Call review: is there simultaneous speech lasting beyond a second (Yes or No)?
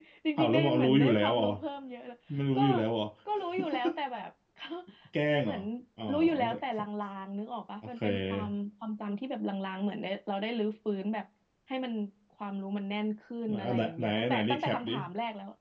Yes